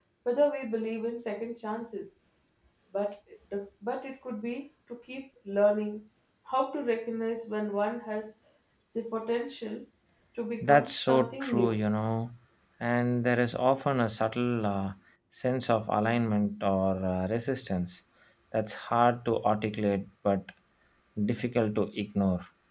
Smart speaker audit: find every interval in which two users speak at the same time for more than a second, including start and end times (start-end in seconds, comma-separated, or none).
10.6-11.8